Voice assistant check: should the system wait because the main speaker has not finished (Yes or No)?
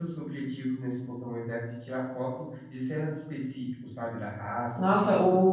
No